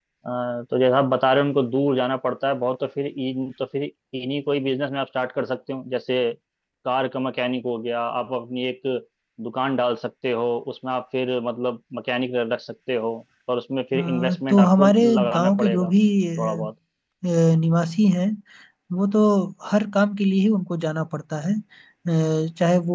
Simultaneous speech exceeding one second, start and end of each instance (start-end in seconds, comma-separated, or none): 13.9-15.9